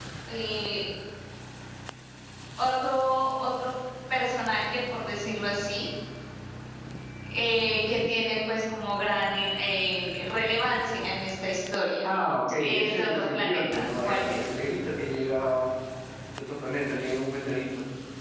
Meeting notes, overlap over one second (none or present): present